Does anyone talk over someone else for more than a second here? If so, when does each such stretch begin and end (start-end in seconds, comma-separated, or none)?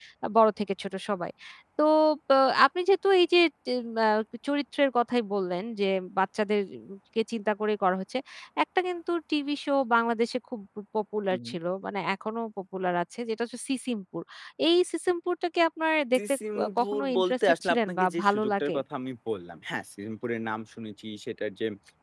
16.8-18.8